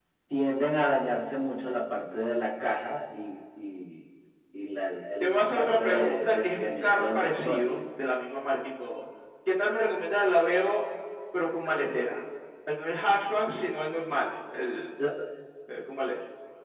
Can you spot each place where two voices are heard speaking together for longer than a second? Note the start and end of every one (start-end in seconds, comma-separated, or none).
5.2-7.6